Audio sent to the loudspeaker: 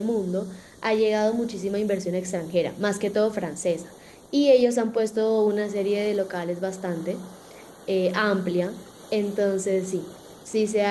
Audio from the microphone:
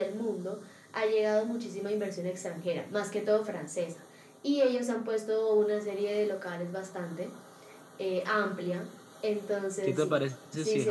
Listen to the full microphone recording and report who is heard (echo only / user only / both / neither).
both